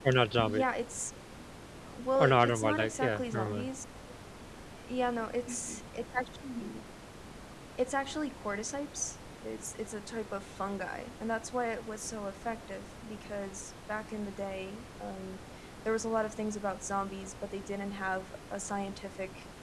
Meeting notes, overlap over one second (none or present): present